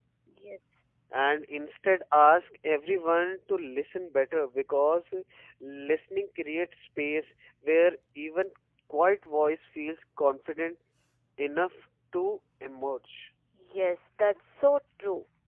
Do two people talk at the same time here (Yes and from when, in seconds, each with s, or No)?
No